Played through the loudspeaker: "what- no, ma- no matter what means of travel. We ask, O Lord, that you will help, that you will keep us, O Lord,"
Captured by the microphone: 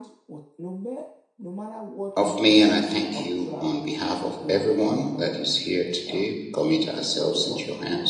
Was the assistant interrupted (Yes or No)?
Yes